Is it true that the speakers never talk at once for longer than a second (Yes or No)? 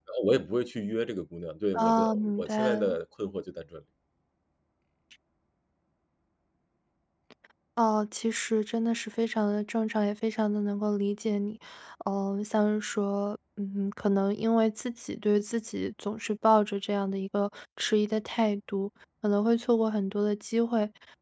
No